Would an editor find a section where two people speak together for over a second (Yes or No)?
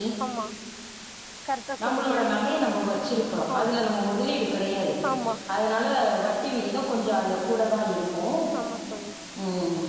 No